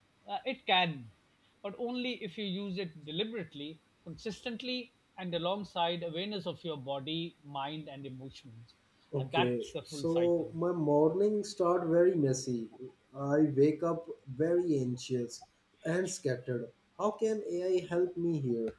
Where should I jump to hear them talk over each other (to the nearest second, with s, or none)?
9 s